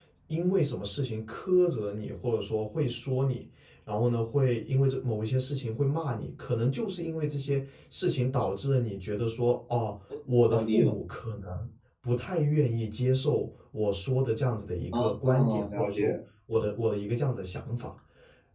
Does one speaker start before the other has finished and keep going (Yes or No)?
Yes